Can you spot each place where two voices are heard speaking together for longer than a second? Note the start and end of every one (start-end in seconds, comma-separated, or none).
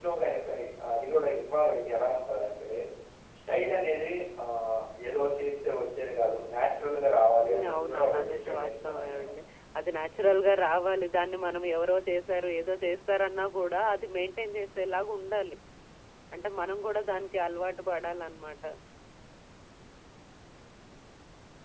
7.5-9.3